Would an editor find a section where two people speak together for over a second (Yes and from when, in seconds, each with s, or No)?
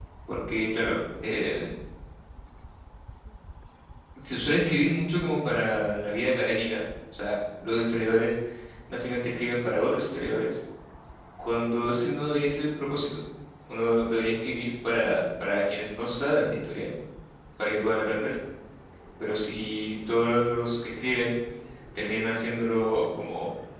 No